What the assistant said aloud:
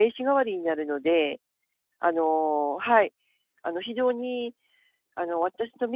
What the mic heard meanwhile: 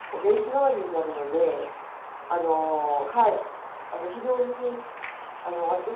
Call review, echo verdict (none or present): present